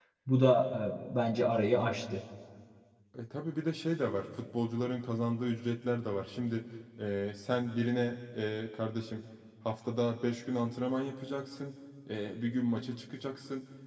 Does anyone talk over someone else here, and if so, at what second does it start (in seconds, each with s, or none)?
none